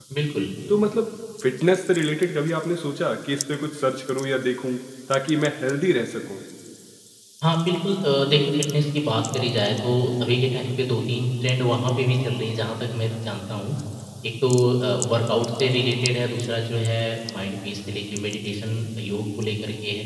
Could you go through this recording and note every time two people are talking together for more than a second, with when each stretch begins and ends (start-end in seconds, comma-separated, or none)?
none